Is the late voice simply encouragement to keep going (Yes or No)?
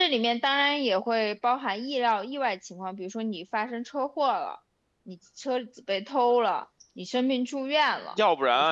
No